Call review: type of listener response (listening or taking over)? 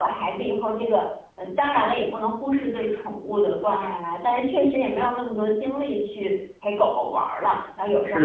taking over